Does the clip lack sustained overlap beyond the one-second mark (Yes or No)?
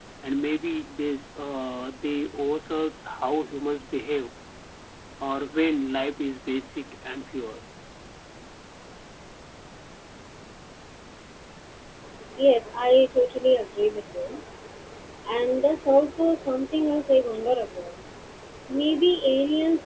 Yes